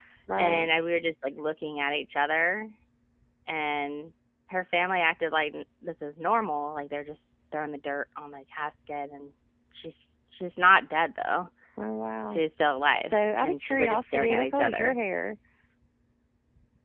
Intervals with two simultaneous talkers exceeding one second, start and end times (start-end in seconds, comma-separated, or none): 13.0-14.9